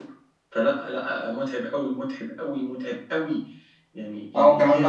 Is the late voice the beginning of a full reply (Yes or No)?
Yes